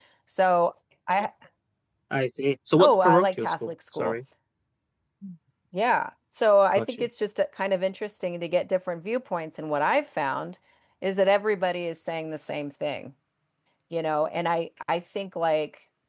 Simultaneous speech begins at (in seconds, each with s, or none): 2.8 s